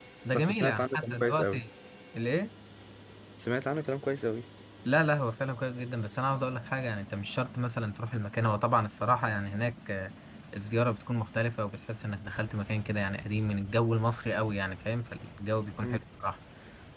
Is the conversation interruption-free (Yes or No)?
No